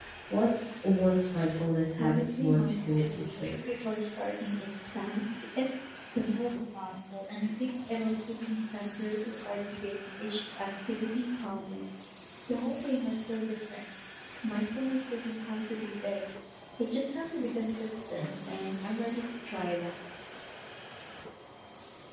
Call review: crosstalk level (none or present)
present